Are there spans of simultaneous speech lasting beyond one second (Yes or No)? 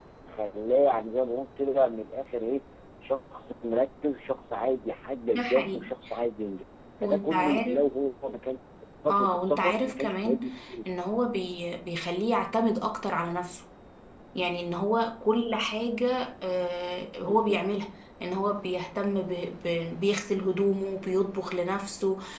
Yes